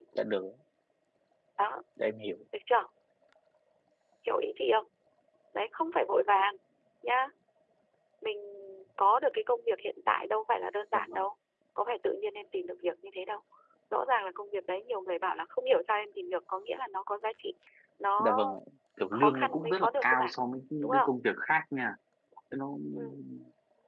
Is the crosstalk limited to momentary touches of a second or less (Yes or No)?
No